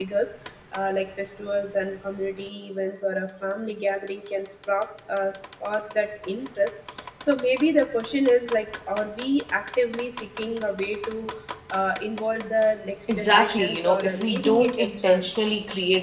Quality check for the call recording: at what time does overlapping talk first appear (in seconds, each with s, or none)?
13.1 s